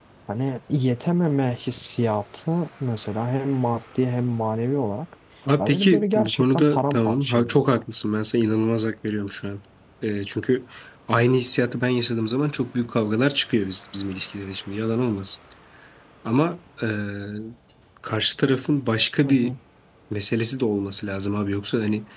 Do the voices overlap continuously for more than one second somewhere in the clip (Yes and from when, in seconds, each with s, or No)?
Yes, from 5.6 s